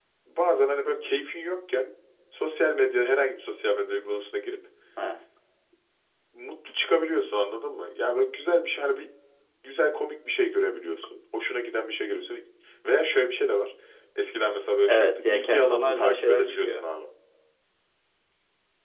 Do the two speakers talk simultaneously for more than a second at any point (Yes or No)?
Yes